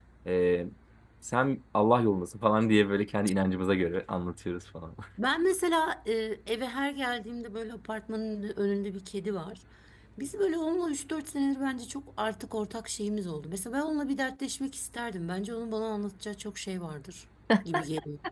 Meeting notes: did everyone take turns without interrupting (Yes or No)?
Yes